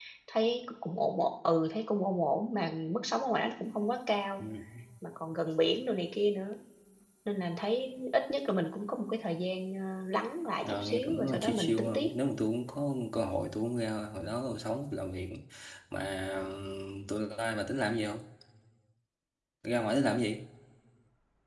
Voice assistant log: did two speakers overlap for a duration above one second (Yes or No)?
Yes